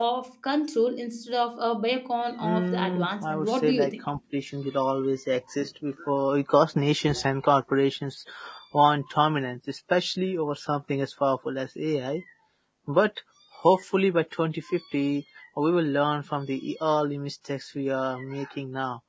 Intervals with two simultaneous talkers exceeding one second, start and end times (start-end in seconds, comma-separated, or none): 2.4-4.0